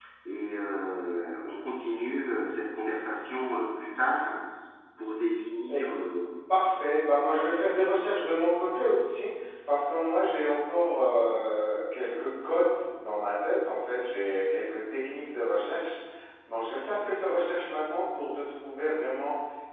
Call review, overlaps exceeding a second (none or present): none